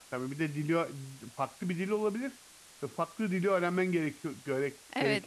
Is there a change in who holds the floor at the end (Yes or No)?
Yes